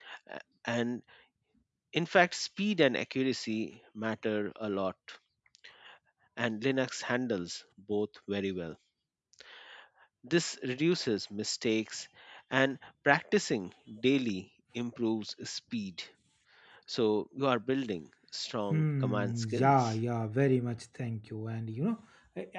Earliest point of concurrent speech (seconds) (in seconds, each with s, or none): 18.7 s